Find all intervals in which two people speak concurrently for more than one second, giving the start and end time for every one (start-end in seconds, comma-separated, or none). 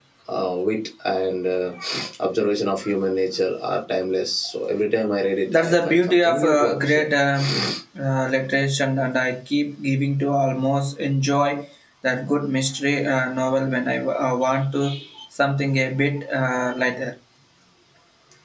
5.5-7.0